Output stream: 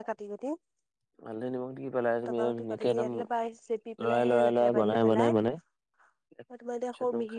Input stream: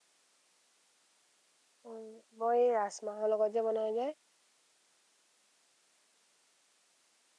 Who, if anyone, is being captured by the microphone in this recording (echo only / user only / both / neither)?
user only